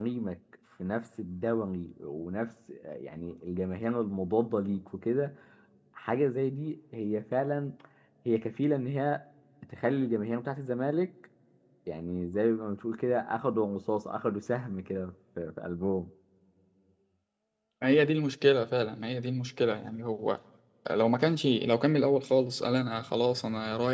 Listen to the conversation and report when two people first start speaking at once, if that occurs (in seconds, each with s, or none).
none